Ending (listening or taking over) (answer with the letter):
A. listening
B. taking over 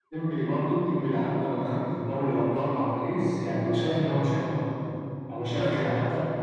A